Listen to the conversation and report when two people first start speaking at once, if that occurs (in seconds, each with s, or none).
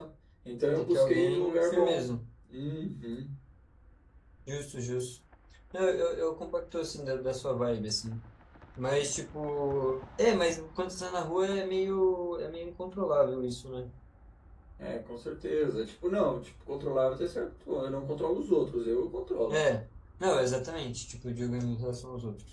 0.8 s